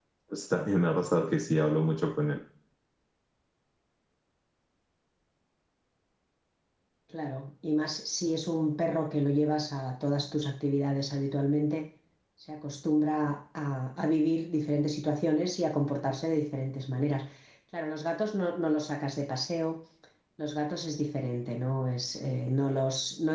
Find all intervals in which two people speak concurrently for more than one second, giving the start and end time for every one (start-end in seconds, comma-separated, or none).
none